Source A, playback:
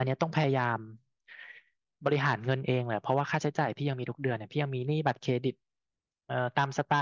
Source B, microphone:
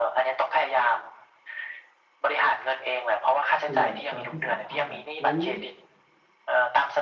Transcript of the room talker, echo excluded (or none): คือแบบตอนที่สัมภาษณ์อ่ะอุ๊ย